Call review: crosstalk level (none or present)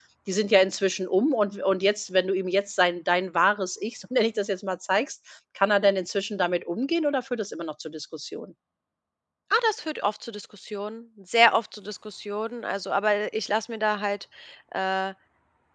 none